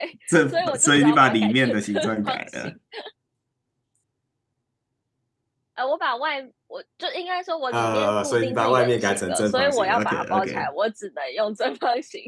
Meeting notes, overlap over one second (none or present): present